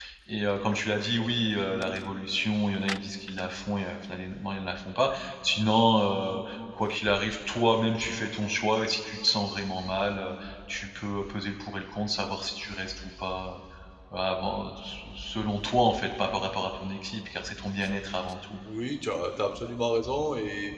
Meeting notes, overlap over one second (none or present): none